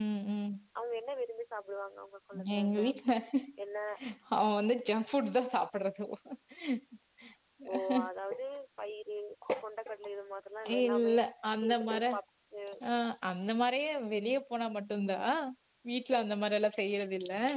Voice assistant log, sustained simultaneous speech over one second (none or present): none